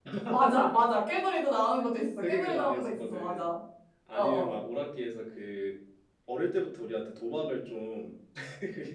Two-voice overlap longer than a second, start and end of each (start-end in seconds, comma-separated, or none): 2.2-3.4